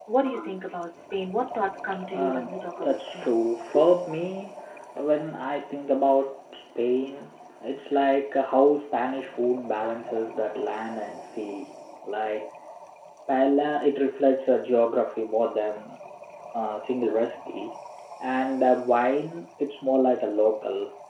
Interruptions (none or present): present